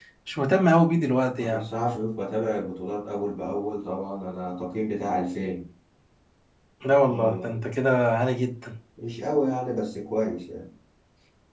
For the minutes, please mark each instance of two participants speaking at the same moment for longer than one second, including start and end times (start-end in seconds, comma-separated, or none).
none